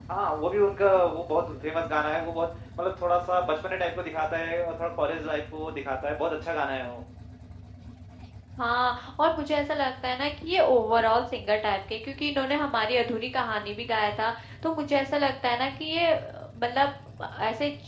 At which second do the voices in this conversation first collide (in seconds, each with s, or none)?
none